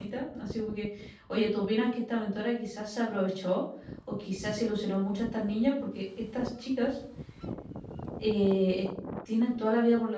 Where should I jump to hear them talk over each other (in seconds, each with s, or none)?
none